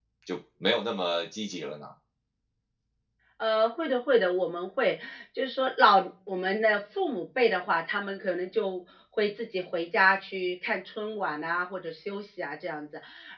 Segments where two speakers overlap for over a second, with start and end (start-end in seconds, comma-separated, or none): none